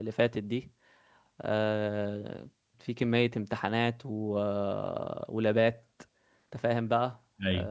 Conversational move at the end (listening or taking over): listening